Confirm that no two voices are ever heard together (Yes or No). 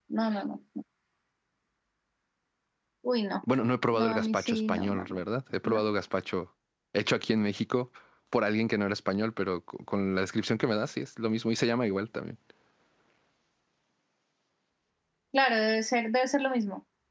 No